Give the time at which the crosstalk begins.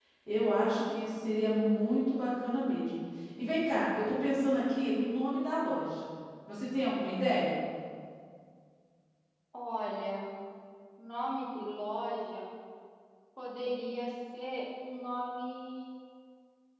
none

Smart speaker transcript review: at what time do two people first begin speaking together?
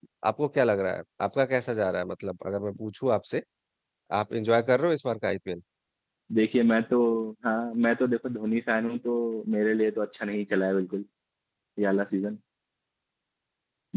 none

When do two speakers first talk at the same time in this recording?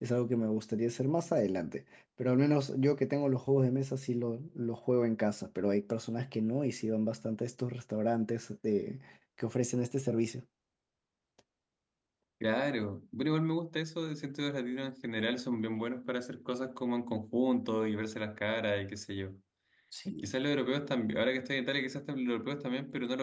none

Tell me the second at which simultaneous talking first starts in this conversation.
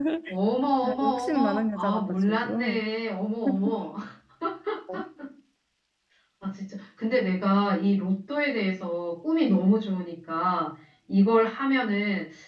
0.8 s

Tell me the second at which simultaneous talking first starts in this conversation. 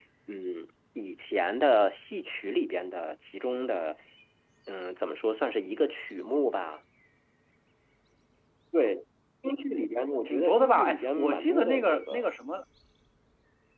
10.2 s

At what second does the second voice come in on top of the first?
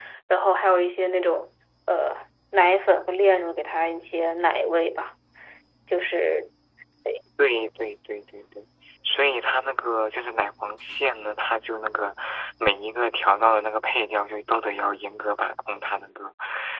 none

